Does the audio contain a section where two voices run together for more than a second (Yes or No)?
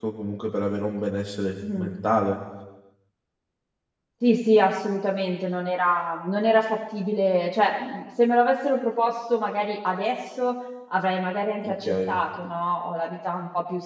No